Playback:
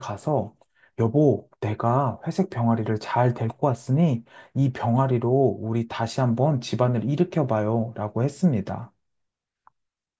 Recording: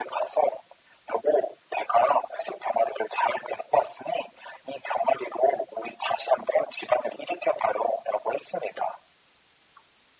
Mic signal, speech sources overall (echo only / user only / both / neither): echo only